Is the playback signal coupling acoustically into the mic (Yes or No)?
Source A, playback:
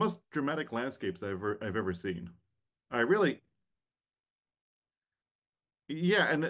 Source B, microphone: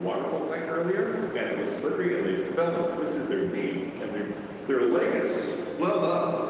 No